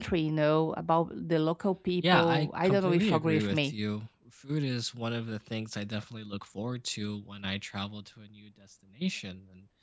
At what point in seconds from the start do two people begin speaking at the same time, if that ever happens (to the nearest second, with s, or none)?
2 s